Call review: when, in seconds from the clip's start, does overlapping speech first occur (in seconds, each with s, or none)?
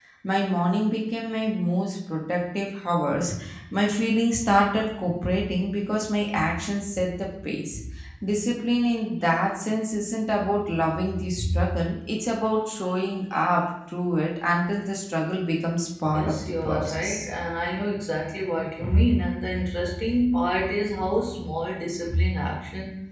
16.1 s